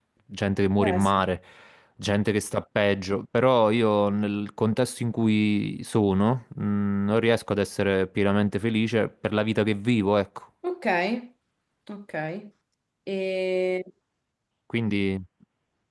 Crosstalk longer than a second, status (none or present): none